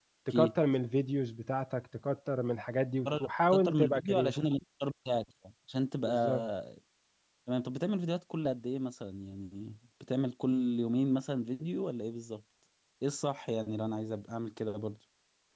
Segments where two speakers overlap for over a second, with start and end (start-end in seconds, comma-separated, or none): 3.0-4.3